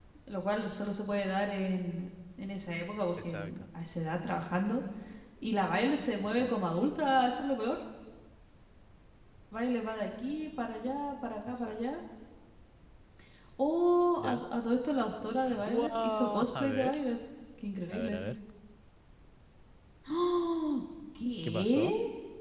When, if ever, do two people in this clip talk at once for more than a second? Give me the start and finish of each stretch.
15.6-17.0

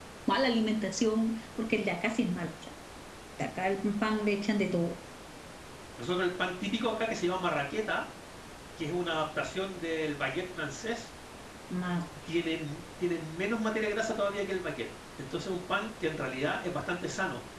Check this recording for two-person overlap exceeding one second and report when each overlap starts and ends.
none

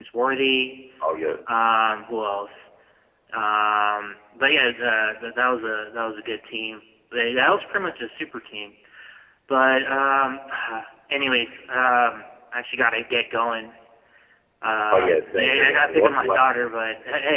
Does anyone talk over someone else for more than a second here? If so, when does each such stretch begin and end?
14.9-16.4

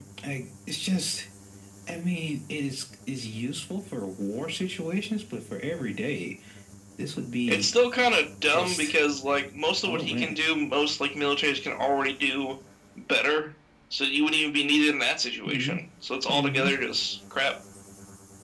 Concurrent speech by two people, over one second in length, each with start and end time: none

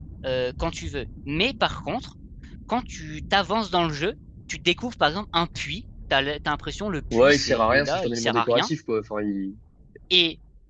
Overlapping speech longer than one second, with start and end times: 7.1-8.7

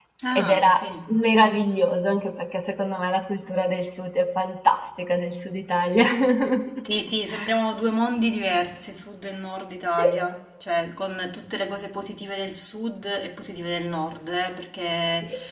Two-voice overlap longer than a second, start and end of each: none

